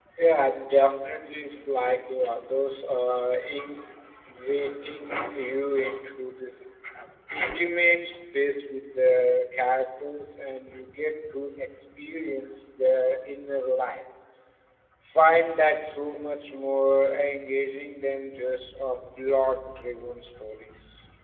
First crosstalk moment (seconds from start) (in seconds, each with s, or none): none